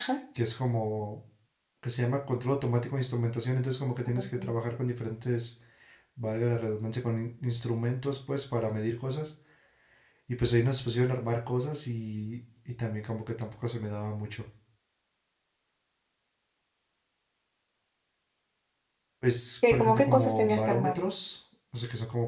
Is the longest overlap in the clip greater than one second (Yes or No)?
Yes